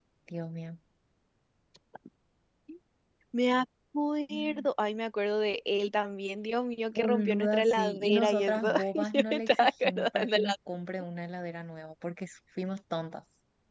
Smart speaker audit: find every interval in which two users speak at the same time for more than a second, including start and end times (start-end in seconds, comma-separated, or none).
6.9-10.5